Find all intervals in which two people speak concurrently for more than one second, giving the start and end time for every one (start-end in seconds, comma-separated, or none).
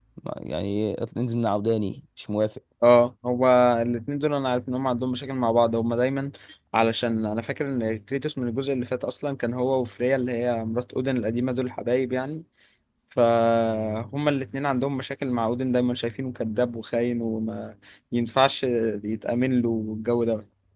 none